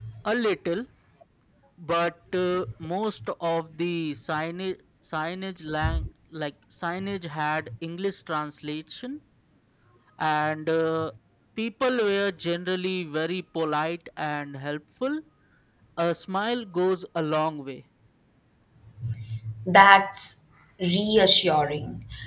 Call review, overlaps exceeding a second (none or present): none